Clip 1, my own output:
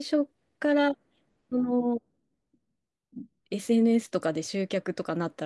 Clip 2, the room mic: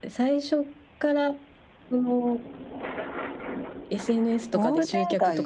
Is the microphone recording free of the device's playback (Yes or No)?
No